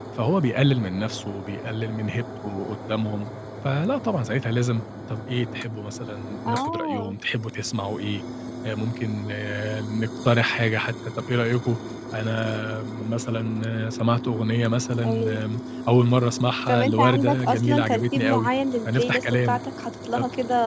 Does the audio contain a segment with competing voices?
Yes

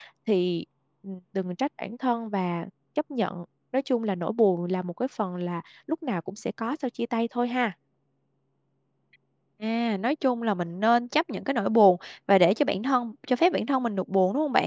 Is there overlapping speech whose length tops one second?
No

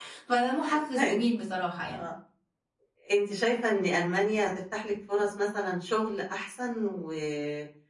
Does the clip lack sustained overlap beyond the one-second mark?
Yes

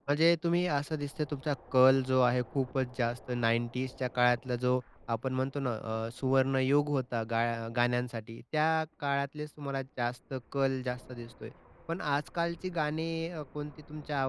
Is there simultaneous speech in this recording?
No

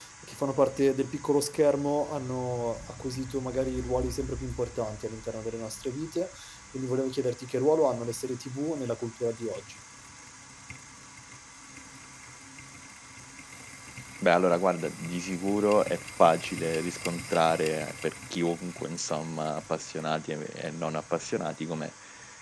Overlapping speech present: No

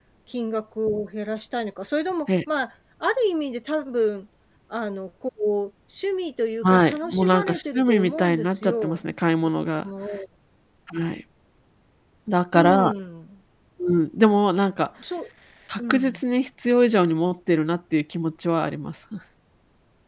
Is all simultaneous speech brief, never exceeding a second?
No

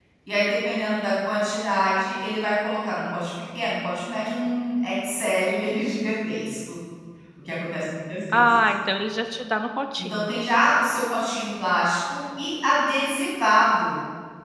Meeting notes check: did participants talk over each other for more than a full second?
No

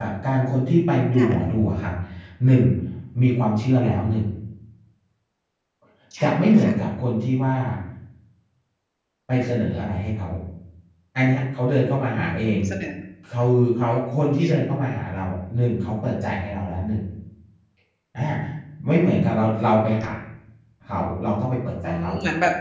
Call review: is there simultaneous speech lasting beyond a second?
No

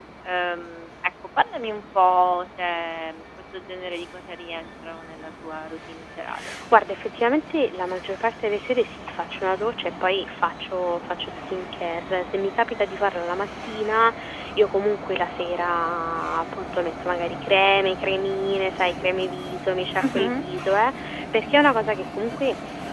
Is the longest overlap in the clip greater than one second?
No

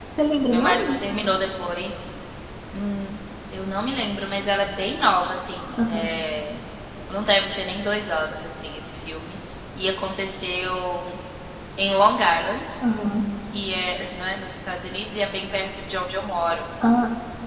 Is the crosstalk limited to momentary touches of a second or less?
Yes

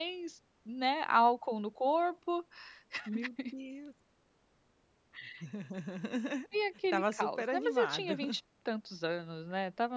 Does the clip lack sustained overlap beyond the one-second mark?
No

